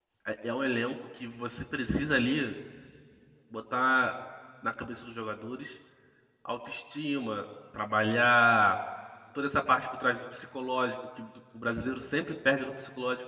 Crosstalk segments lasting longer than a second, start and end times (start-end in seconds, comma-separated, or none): none